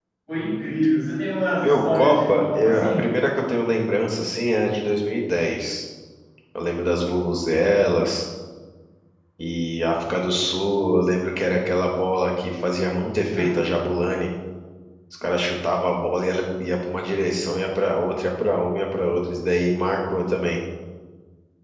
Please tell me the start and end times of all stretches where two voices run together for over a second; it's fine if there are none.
1.6-3.0

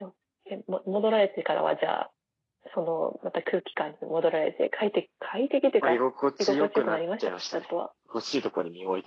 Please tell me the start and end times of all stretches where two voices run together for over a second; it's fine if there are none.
6.4-7.7

